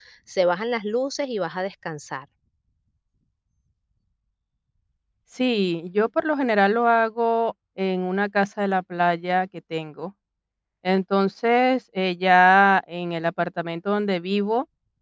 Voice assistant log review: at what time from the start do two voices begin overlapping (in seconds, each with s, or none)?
none